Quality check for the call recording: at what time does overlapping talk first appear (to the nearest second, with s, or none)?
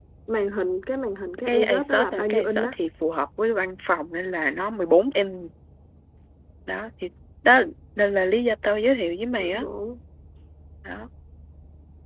1 s